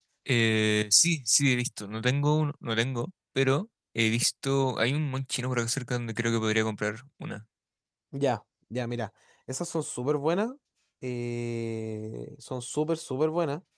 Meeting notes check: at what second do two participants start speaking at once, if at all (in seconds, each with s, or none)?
none